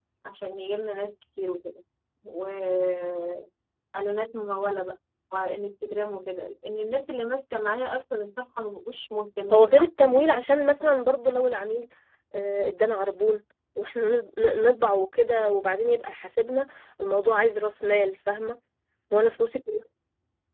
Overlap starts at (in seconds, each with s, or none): 9.5 s